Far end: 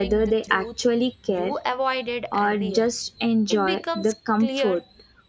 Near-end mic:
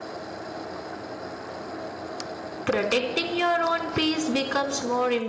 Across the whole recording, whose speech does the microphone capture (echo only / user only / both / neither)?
user only